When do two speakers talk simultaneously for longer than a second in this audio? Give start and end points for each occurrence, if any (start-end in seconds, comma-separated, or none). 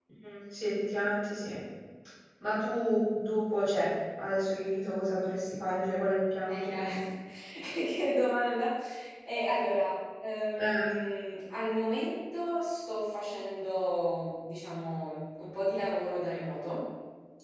none